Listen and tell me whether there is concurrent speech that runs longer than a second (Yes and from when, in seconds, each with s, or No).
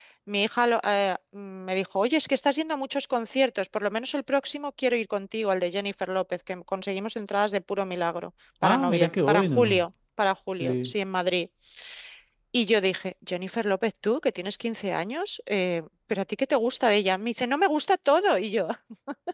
Yes, from 8.6 s